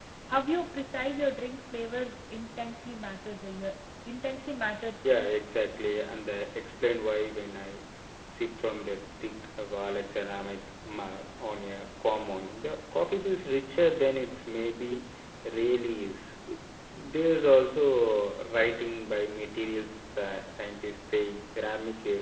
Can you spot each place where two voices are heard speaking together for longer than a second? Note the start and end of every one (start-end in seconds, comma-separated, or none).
none